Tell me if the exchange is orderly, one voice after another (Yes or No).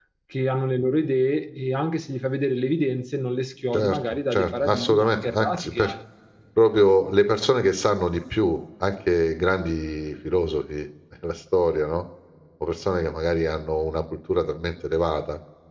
No